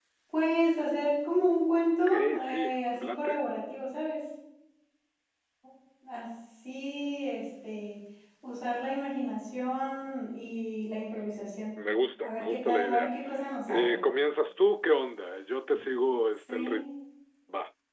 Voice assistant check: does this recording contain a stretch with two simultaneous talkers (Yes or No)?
Yes